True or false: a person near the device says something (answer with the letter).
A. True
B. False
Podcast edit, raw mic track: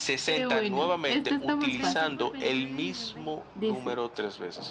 A